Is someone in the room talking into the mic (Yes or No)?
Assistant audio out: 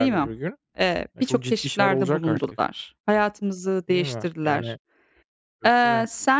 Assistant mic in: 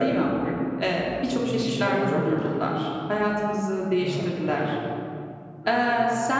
Yes